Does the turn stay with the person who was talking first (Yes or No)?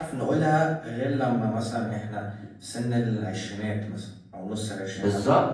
No